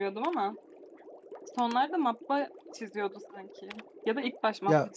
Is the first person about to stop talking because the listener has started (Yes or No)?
Yes